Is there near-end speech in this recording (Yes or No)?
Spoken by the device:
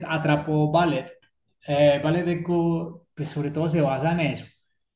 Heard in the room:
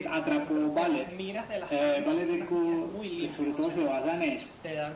Yes